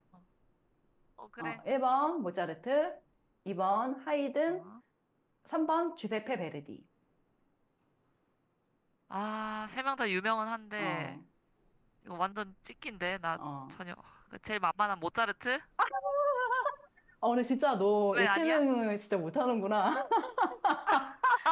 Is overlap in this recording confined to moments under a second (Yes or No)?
Yes